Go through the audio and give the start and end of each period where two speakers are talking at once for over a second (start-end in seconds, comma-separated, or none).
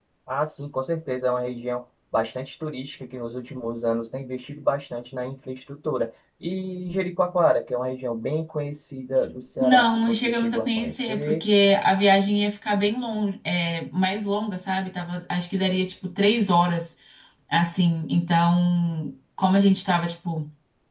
9.6-11.4